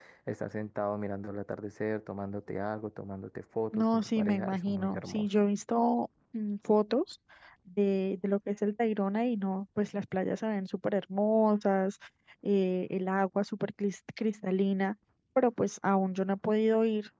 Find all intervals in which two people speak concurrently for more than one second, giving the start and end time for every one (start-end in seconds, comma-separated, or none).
3.7-5.3